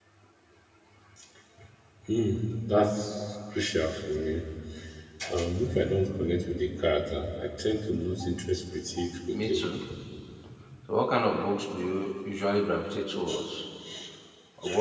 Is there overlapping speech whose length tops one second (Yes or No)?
No